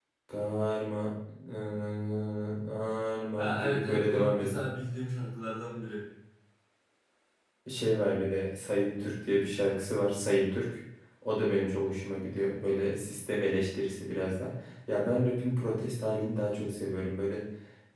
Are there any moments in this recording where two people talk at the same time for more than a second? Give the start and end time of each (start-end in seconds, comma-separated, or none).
3.4-4.6